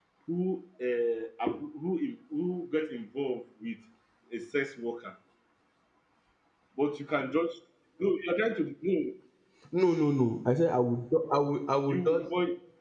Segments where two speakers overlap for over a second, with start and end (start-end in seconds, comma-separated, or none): none